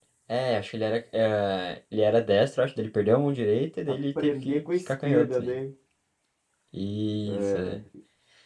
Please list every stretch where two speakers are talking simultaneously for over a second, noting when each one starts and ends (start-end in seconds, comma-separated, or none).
3.9-5.5